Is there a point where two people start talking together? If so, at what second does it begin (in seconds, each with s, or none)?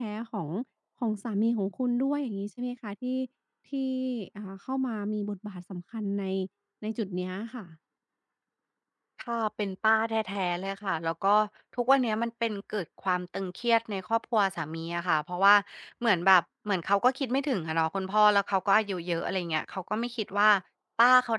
none